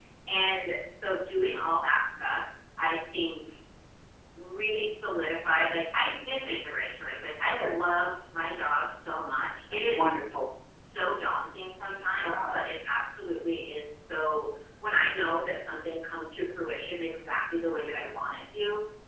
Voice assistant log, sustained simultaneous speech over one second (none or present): none